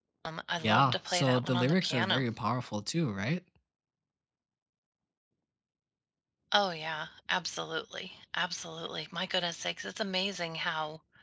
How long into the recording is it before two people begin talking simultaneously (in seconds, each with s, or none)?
0.6 s